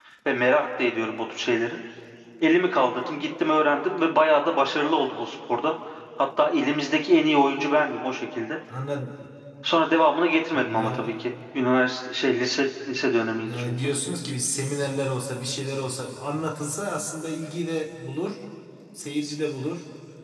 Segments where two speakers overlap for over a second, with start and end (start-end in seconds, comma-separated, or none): none